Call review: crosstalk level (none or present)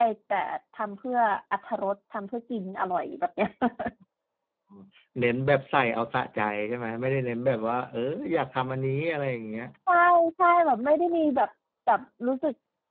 none